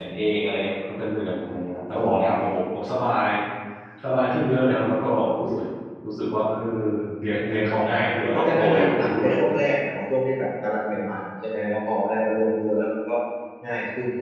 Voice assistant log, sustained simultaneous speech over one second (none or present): present